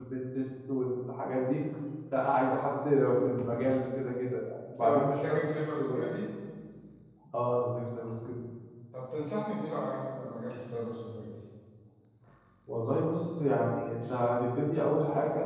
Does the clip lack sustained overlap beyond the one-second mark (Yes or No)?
No